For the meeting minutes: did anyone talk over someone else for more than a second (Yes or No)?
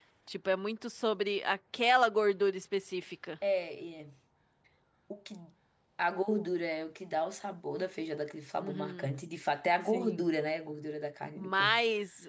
No